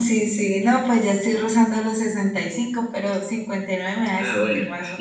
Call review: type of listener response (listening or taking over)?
taking over